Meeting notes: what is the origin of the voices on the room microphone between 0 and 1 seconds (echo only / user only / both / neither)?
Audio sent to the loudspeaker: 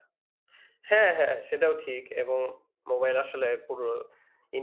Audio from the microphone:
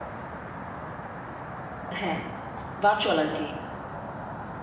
neither